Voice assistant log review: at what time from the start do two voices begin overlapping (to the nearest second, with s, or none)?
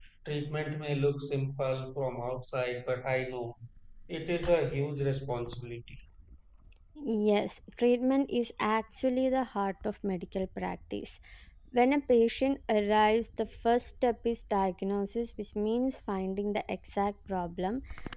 none